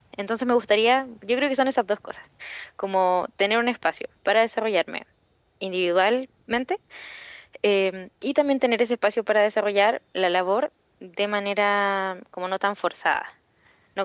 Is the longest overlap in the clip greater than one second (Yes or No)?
No